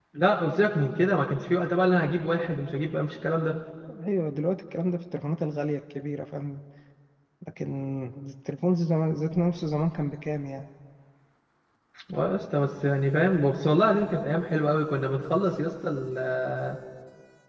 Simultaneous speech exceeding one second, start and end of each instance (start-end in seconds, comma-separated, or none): none